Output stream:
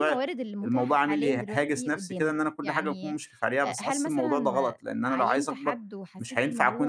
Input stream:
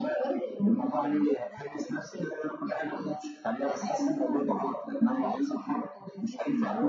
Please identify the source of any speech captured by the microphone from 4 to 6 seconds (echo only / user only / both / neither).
echo only